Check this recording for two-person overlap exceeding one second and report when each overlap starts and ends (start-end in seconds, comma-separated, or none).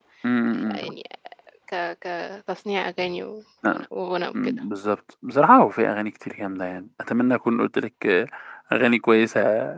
none